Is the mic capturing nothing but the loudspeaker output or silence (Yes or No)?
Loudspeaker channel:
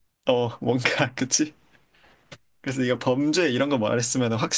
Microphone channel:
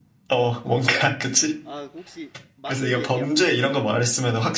No